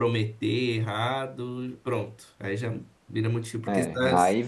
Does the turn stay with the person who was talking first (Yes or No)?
No